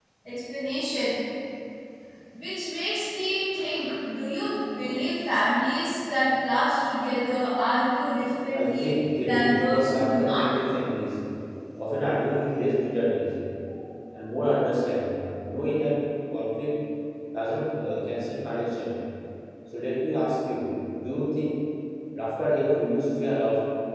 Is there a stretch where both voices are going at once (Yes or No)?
Yes